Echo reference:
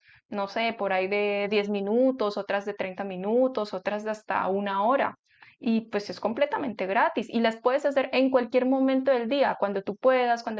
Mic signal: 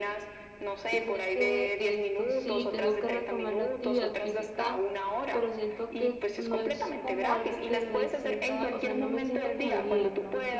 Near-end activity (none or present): present